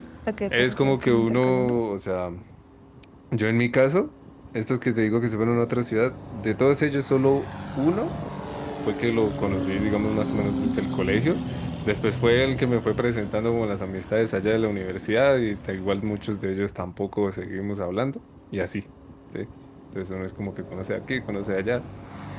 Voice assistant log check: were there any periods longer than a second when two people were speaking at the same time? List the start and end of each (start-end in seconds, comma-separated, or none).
0.5-1.7